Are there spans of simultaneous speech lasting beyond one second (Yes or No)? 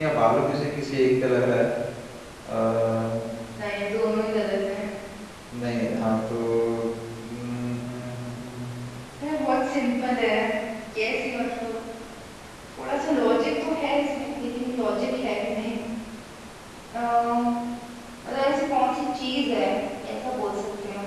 No